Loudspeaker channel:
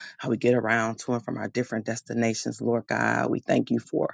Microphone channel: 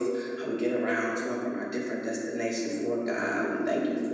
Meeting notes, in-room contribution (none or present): none